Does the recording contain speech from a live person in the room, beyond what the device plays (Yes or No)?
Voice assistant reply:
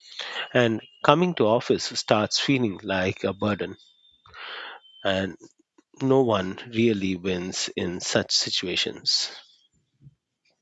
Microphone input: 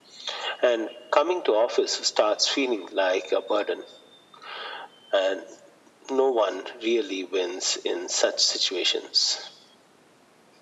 No